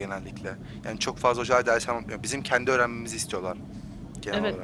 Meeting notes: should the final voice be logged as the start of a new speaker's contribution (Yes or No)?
Yes